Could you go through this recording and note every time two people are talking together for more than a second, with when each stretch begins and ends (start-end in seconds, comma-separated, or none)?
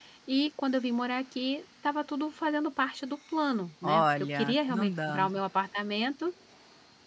3.8-5.4